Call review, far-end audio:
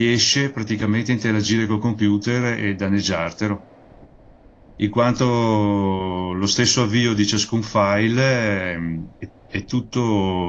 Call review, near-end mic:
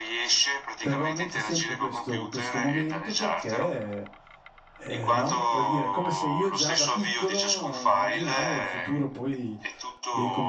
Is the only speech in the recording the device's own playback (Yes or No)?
No